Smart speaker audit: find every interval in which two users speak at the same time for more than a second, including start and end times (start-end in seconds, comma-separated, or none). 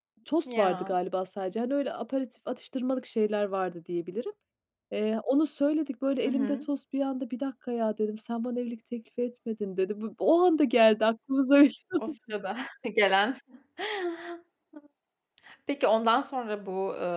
none